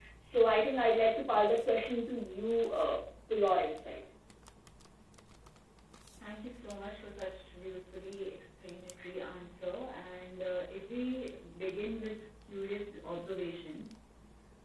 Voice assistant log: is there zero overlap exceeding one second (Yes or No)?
Yes